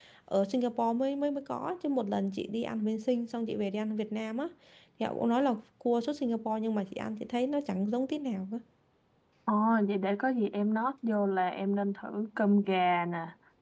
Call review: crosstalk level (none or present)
none